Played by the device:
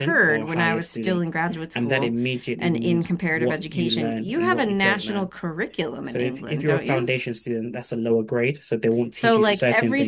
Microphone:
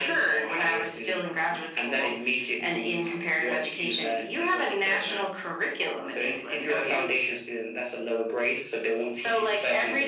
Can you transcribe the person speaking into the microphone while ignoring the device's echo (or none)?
none